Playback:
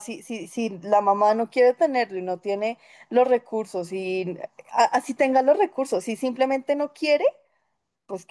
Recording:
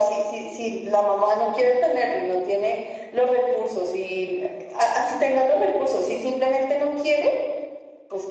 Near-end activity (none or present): none